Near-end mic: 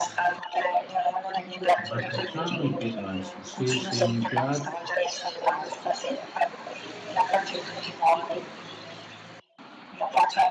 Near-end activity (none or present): present